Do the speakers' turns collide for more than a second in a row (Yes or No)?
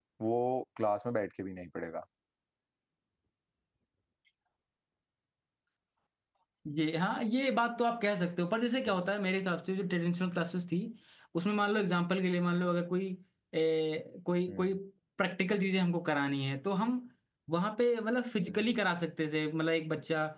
No